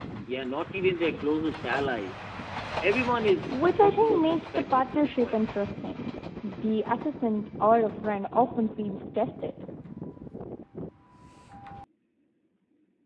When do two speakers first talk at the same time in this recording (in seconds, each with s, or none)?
3.4 s